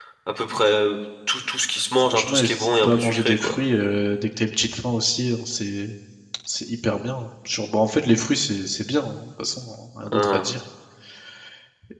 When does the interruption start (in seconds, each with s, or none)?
2.0 s